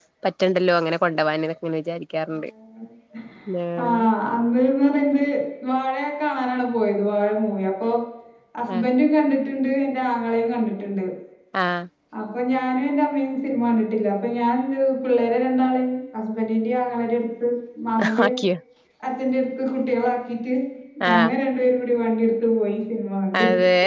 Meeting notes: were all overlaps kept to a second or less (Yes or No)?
Yes